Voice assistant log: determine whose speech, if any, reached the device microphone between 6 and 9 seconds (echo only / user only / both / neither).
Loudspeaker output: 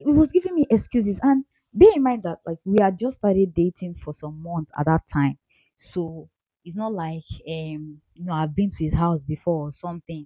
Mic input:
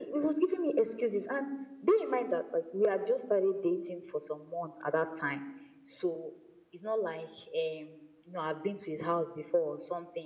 echo only